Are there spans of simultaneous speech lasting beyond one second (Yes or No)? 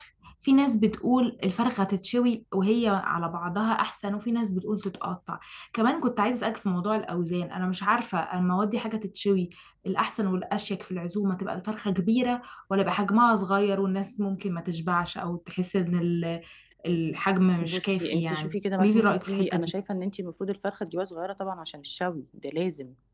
Yes